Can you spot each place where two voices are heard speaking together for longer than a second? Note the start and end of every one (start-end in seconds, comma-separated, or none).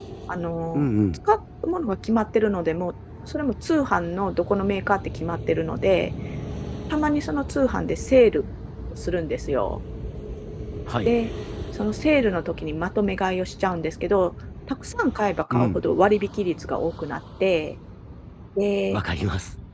none